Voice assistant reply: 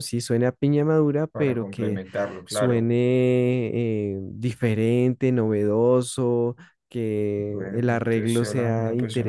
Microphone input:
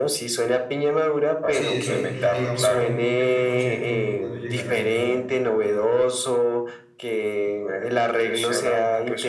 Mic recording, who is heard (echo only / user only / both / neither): both